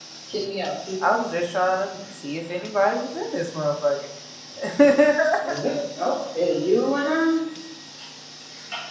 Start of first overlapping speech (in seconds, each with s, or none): none